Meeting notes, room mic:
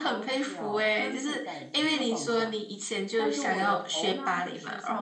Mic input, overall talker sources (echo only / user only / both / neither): echo only